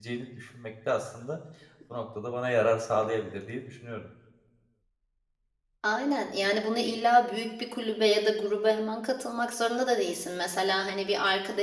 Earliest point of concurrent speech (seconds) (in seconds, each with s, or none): none